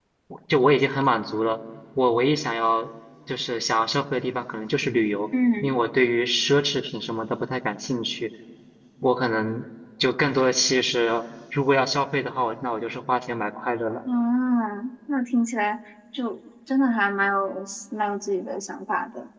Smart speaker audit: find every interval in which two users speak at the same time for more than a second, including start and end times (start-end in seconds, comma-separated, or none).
none